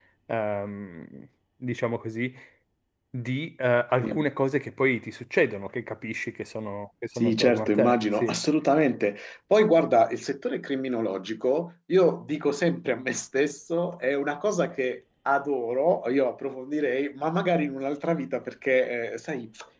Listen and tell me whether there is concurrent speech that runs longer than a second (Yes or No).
Yes